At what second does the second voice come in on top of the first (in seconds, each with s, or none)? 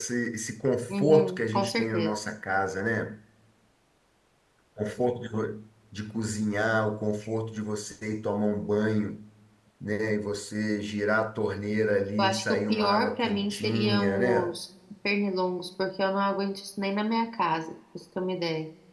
0.9 s